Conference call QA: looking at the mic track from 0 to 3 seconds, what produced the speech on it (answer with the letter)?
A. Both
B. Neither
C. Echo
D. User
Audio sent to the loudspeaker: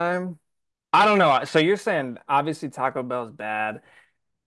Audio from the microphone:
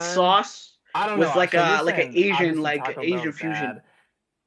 A